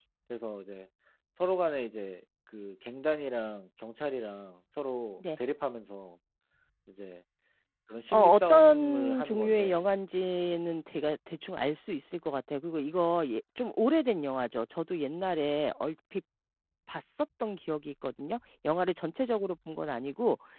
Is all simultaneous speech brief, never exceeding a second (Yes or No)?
No